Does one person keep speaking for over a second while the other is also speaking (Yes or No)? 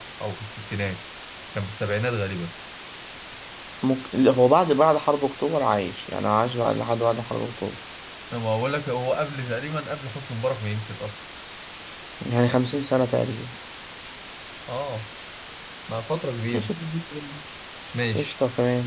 No